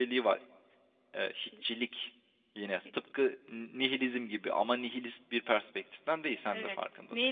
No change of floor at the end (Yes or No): No